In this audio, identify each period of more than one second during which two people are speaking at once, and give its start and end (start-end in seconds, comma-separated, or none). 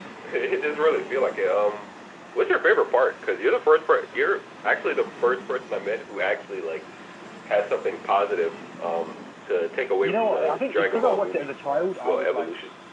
10.0-11.5